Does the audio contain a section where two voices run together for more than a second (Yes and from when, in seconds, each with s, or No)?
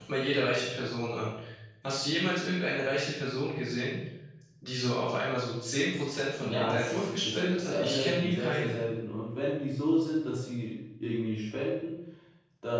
Yes, from 6.4 s